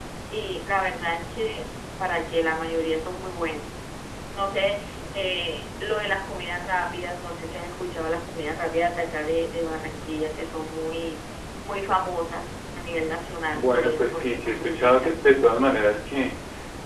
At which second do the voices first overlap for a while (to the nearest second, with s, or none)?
14 s